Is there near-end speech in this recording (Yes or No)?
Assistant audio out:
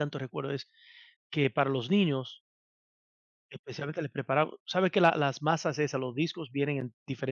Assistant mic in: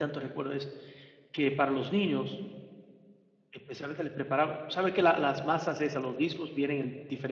No